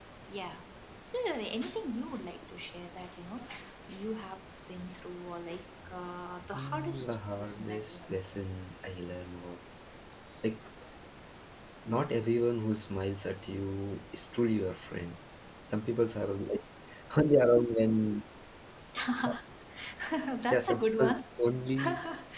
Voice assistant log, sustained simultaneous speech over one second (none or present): present